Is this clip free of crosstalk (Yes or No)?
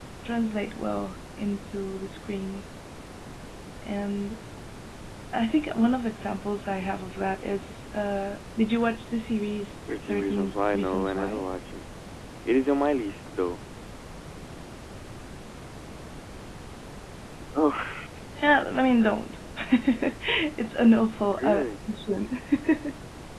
No